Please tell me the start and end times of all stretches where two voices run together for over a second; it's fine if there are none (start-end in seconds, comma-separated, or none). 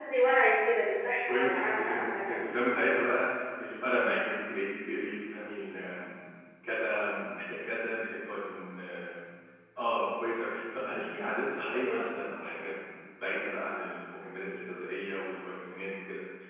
1.3-3.1